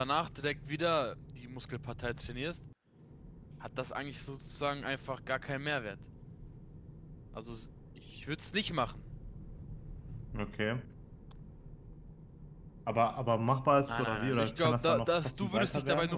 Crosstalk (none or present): present